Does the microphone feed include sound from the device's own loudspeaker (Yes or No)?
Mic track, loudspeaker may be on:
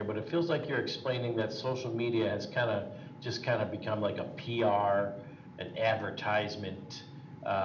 Yes